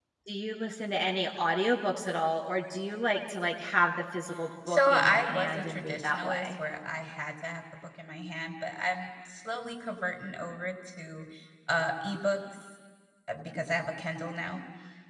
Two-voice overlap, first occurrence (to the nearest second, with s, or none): 5 s